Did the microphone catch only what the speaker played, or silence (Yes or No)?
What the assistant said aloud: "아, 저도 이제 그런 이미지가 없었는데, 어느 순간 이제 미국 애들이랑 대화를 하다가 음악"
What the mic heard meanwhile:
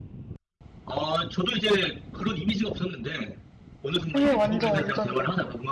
No